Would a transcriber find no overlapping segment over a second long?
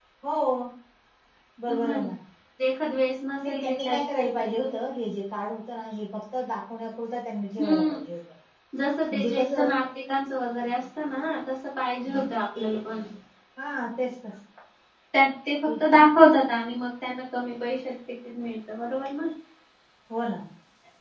No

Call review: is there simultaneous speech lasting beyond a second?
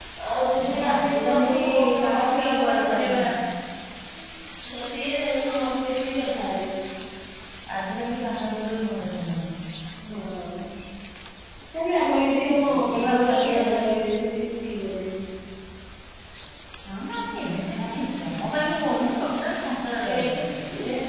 Yes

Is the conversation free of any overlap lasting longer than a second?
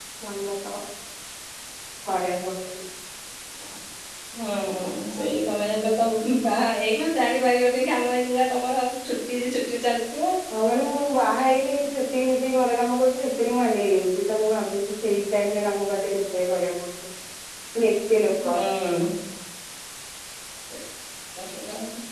Yes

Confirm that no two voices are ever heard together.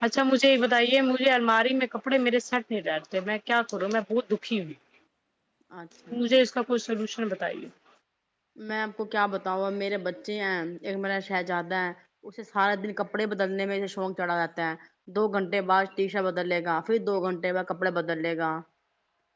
Yes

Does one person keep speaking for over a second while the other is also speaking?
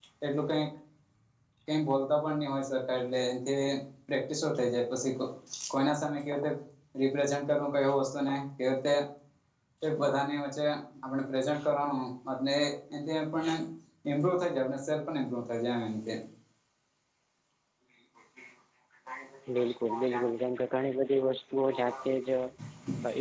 No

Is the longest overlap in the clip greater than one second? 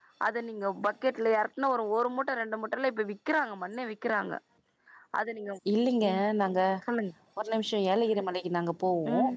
No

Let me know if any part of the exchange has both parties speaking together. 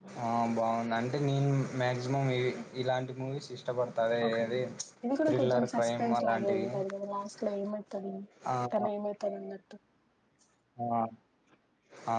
Yes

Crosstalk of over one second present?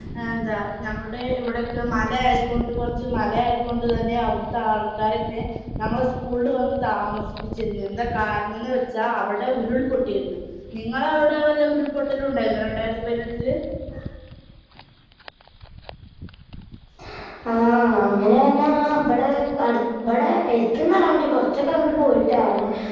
No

